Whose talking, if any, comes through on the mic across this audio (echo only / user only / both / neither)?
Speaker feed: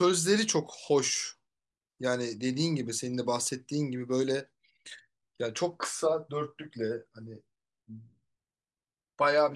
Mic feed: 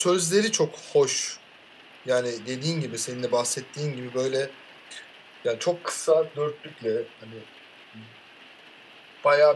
echo only